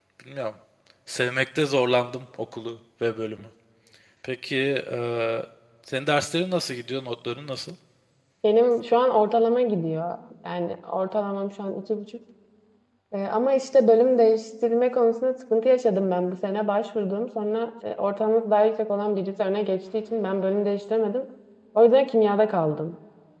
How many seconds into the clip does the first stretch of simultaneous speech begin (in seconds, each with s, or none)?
none